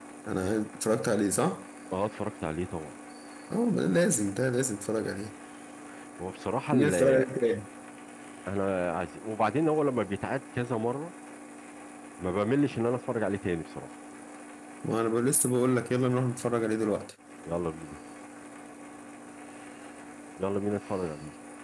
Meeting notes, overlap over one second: none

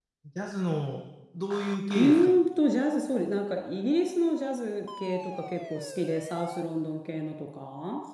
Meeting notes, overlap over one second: none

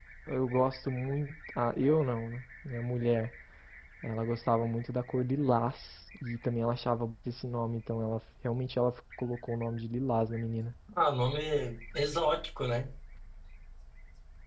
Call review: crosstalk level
none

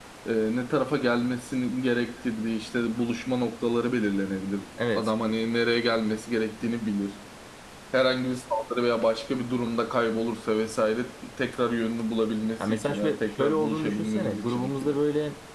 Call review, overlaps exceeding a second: present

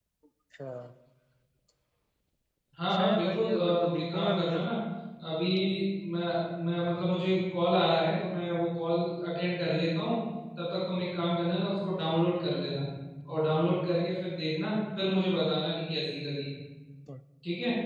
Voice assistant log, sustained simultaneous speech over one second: present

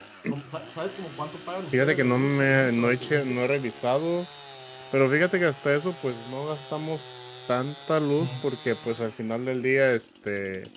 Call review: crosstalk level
present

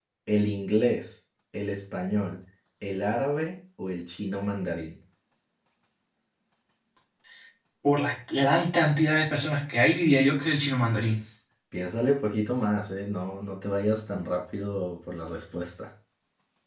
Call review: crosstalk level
none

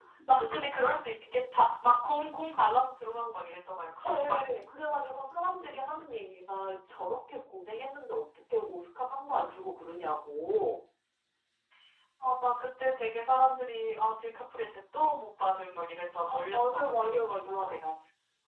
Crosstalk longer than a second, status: present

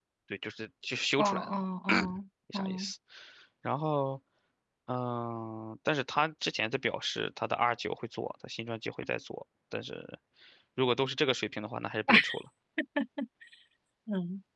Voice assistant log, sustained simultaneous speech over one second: none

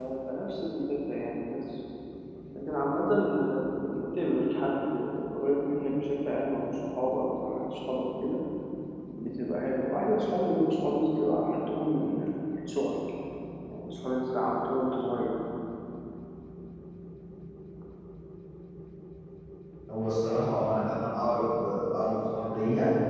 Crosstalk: none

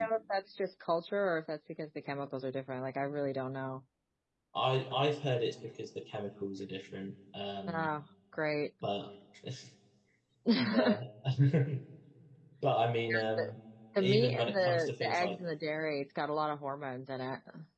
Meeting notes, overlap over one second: present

